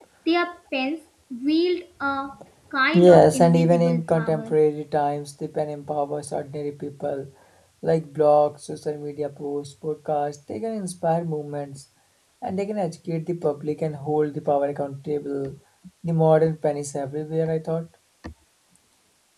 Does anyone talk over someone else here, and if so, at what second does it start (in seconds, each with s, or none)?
2.9 s